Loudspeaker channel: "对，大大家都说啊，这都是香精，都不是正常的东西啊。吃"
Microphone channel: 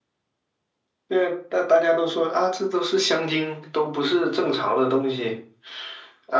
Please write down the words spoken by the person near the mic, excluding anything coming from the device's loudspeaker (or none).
none